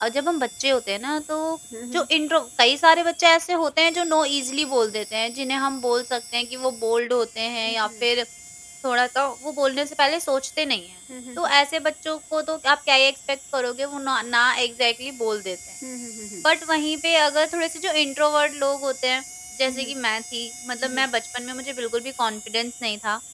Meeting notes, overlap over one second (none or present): none